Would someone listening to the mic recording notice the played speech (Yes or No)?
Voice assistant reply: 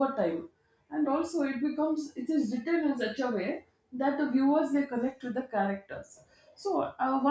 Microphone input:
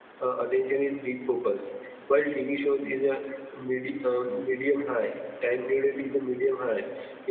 No